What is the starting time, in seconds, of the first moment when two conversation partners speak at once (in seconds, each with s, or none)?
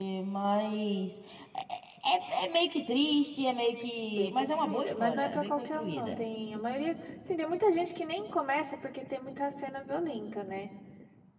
4.1 s